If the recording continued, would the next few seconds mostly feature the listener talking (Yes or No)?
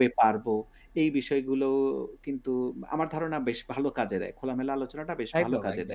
Yes